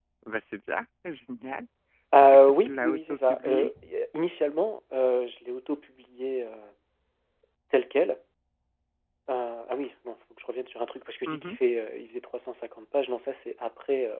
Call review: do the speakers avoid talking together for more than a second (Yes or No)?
No